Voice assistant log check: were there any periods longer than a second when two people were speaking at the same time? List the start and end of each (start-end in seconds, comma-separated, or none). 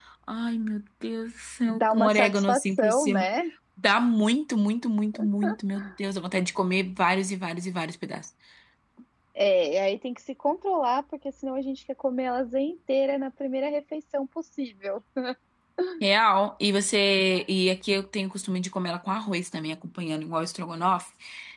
1.6-3.3